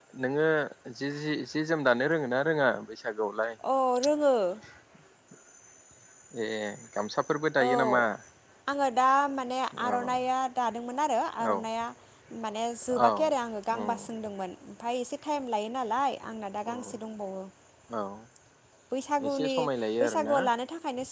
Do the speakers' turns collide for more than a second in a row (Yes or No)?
No